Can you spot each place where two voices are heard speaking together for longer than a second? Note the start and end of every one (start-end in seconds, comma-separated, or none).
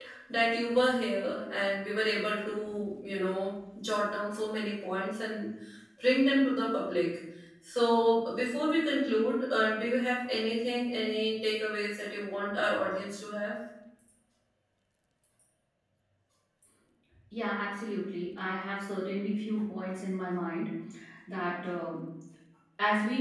none